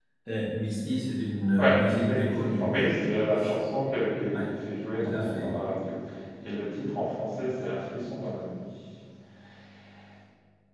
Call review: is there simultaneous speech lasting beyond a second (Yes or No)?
Yes